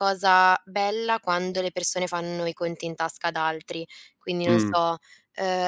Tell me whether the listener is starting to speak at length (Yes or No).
No